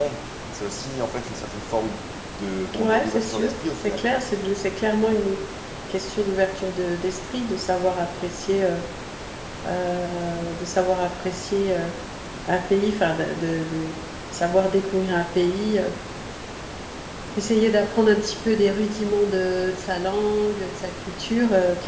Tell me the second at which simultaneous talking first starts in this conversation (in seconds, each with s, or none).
2.7 s